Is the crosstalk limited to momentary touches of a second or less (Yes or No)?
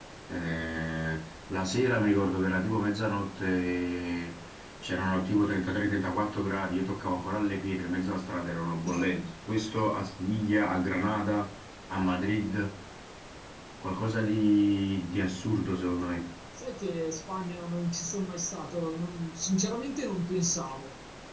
Yes